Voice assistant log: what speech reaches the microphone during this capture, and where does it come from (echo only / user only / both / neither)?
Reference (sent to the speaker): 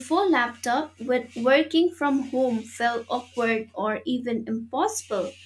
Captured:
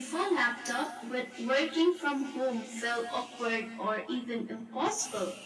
echo only